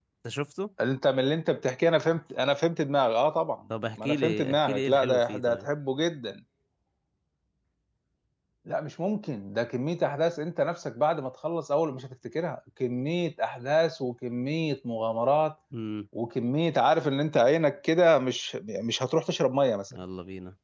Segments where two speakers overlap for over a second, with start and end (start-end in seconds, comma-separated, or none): 4.0-5.7